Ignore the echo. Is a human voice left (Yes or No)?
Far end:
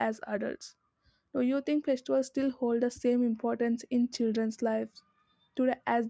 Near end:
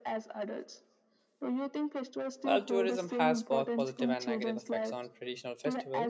Yes